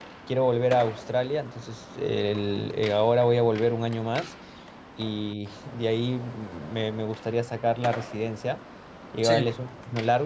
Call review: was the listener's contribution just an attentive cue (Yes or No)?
Yes